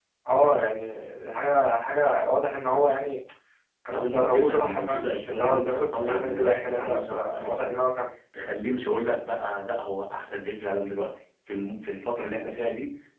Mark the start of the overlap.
3.9 s

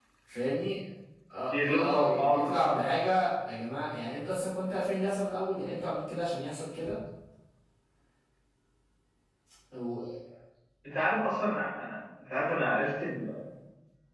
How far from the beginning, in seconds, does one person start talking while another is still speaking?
1.6 s

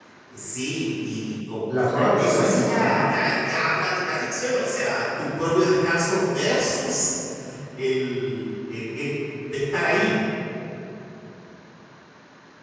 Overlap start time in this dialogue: 1.7 s

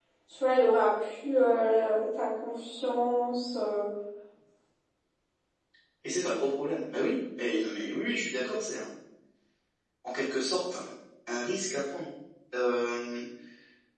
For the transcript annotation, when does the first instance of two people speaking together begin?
none

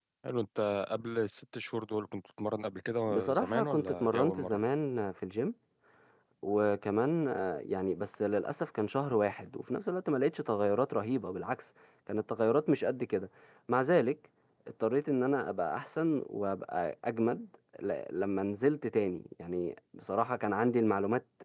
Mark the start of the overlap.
3.1 s

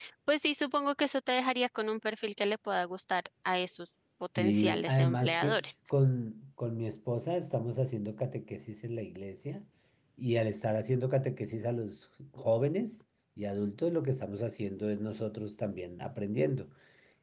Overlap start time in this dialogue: 4.4 s

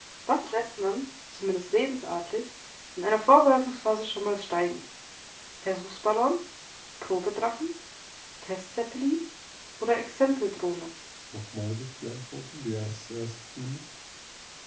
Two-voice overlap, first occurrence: none

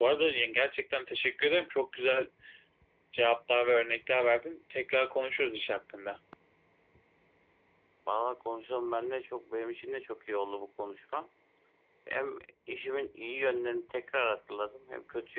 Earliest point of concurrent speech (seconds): none

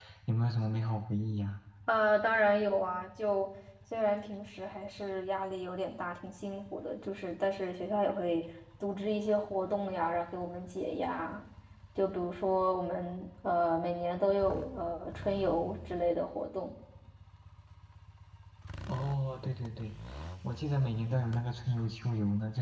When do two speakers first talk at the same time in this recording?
none

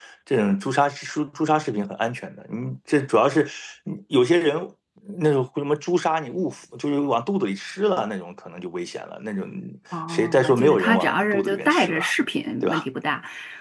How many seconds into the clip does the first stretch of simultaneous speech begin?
10.1 s

